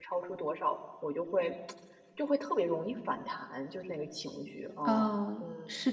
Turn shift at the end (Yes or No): Yes